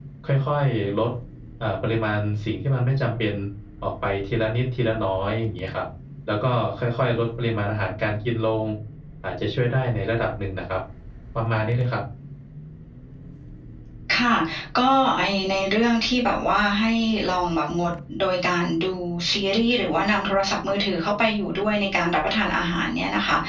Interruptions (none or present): none